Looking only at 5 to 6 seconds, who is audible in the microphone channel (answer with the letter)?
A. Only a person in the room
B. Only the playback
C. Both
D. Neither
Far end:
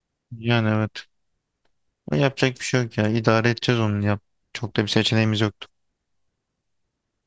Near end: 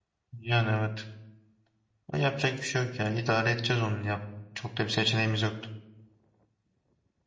B